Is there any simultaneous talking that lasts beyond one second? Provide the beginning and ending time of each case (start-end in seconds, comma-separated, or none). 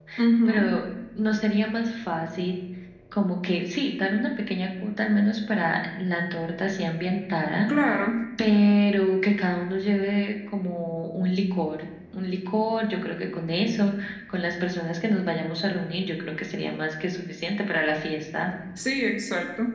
none